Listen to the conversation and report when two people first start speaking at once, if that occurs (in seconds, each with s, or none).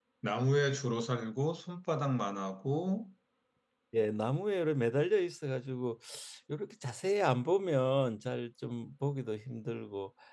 none